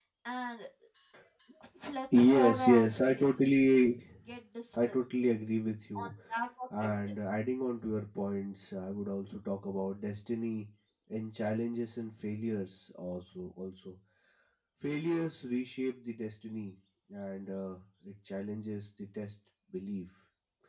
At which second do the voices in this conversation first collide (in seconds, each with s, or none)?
2.1 s